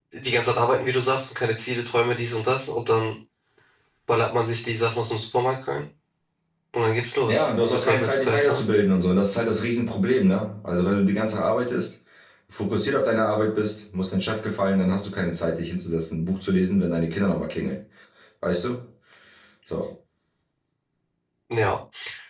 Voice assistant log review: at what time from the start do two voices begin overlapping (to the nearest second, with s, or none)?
7 s